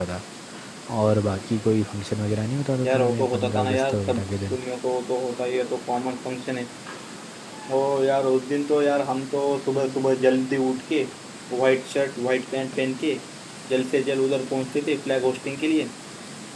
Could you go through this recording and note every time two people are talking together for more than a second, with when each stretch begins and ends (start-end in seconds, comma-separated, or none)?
2.9-4.6